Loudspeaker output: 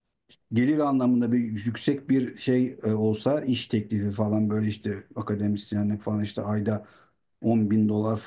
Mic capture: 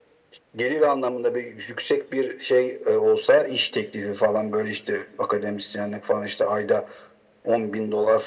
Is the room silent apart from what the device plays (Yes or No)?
Yes